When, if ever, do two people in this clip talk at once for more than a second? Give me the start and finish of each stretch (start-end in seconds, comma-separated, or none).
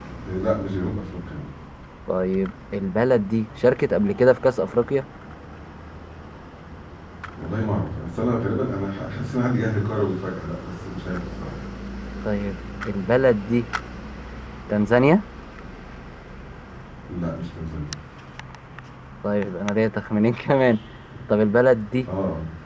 none